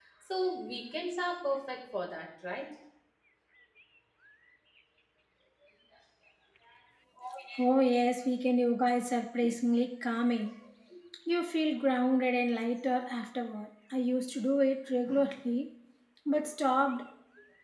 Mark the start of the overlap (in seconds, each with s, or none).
none